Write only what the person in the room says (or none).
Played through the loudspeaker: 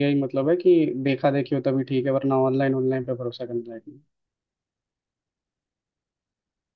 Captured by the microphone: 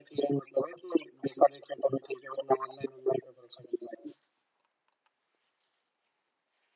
none